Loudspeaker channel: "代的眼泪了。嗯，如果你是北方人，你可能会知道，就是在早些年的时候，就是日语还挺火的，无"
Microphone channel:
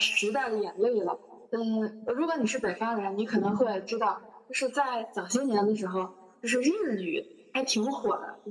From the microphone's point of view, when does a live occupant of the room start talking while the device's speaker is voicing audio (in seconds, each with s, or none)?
3.4 s